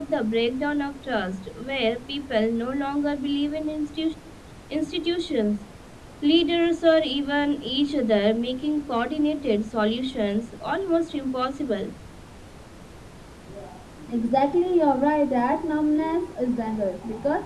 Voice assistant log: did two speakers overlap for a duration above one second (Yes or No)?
No